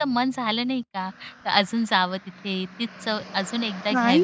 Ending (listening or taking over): taking over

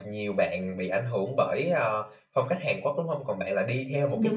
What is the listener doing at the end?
listening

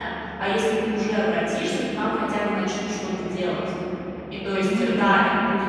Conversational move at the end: listening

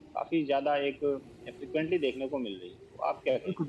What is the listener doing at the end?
taking over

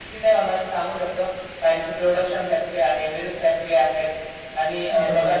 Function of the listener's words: taking over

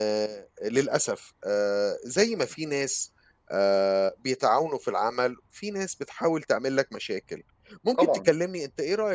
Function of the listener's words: listening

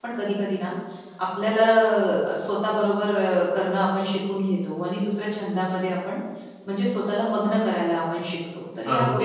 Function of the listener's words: taking over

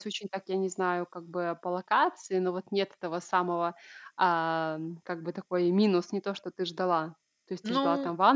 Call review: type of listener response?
listening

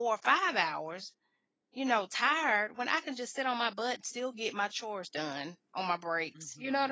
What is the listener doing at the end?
taking over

